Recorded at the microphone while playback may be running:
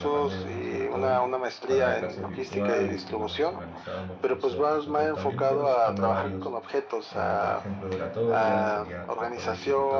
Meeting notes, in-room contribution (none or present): present